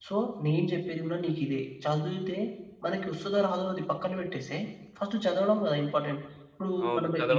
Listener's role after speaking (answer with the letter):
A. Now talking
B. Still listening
A